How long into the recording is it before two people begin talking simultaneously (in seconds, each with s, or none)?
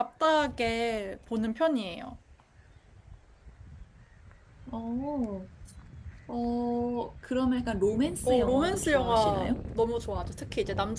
8.3 s